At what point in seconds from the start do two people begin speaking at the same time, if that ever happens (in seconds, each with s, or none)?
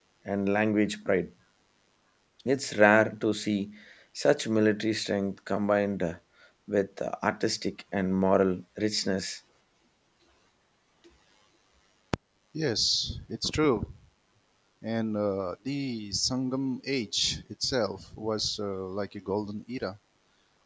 none